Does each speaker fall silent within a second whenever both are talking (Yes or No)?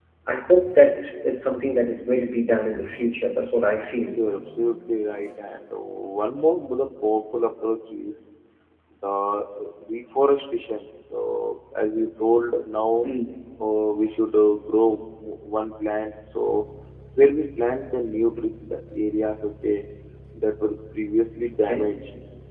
Yes